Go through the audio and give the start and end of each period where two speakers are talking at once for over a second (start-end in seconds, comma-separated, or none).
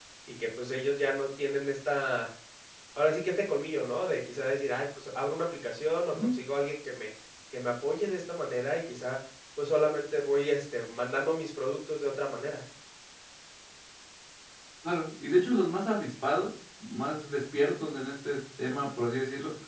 none